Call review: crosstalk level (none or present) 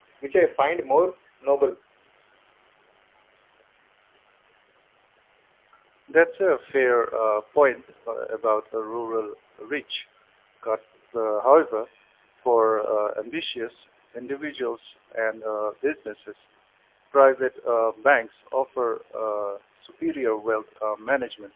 none